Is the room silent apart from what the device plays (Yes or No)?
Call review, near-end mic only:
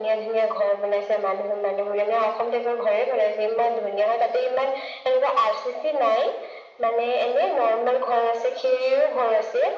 Yes